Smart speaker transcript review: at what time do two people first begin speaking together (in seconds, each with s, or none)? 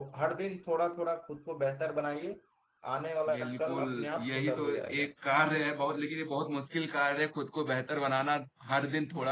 3.3 s